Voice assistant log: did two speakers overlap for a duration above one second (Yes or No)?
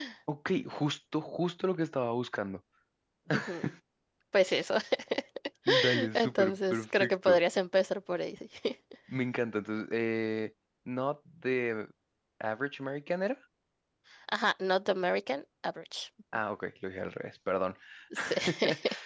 Yes